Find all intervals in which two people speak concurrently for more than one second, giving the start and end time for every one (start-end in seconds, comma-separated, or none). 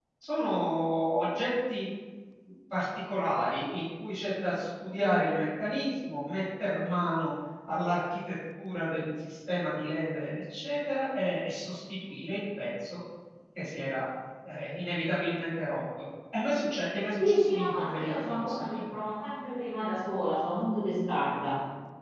17.2-18.8